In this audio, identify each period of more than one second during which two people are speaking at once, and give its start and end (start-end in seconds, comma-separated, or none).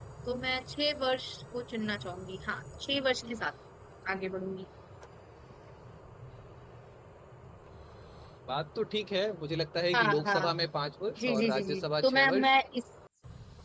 11.2-12.5